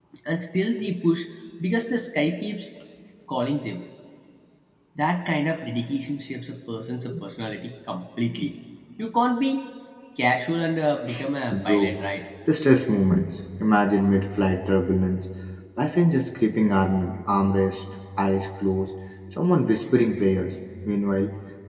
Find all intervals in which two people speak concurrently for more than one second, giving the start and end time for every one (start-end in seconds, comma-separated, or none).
none